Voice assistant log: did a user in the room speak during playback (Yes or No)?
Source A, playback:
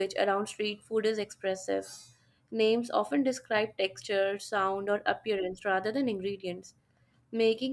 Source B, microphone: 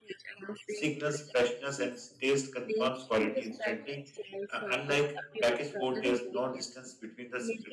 Yes